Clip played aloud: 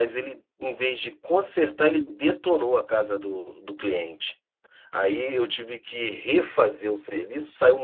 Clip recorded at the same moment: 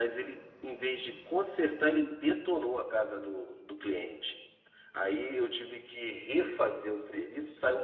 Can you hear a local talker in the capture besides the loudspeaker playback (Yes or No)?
No